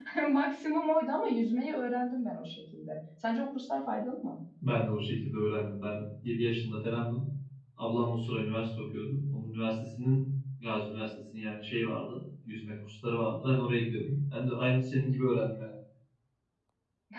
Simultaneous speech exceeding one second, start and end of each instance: none

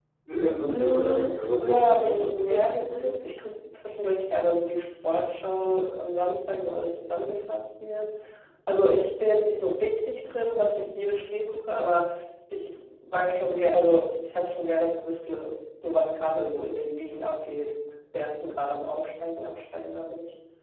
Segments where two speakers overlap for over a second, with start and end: 0.7-3.1

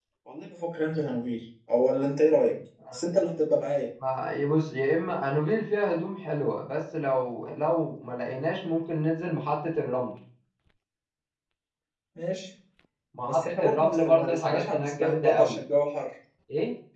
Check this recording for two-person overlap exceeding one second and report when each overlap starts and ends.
13.3-15.6

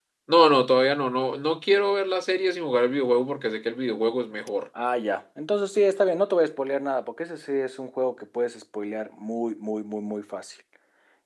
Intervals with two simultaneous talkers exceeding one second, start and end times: none

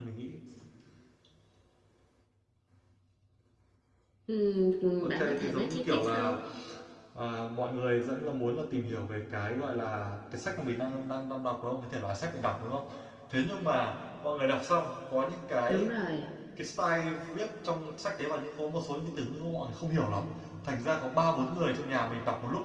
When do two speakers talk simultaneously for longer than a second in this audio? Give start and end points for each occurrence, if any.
5.0-6.3

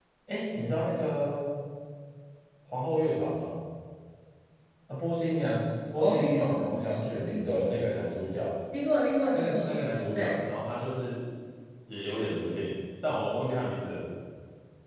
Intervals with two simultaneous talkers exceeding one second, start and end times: 6.0-7.6

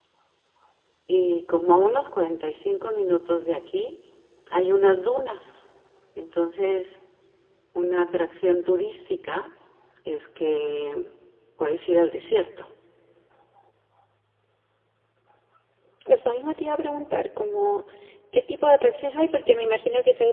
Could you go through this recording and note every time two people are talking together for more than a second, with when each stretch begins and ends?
none

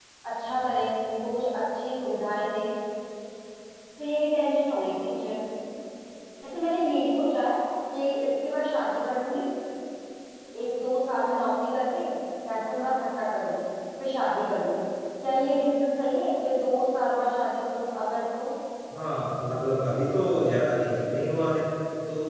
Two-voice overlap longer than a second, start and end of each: none

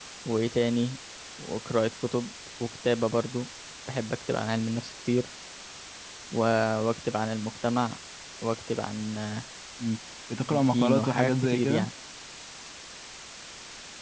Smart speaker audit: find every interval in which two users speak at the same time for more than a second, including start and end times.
10.5-11.9

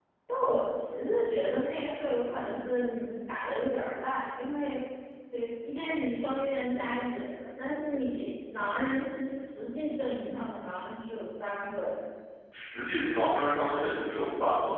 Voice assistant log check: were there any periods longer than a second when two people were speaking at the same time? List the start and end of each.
none

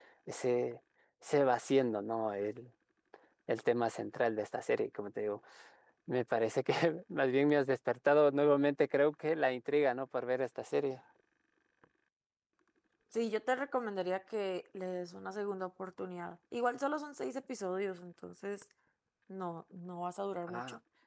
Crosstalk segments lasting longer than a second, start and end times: none

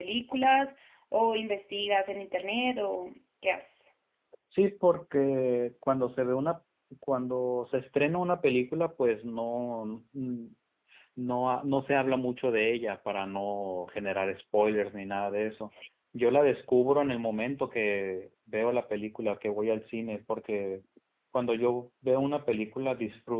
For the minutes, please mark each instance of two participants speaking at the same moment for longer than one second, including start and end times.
none

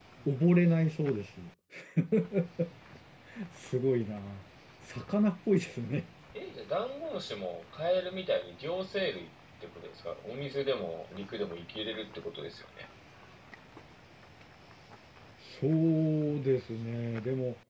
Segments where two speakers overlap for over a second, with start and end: none

